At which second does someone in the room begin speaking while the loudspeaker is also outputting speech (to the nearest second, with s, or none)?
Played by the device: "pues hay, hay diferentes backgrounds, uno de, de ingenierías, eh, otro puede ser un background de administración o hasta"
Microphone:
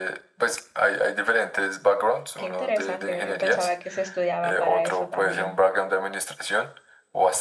2 s